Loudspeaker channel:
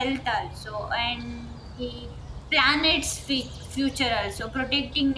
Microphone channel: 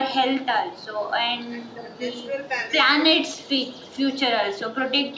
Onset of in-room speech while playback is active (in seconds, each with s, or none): 1.6 s